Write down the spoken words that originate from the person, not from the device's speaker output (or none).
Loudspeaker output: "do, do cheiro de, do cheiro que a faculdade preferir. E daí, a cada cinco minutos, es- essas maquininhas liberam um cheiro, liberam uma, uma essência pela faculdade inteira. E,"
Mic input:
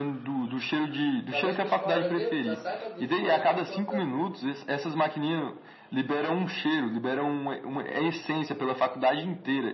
Talvez sua escola já, tenha, já saiba disso e está já implantando.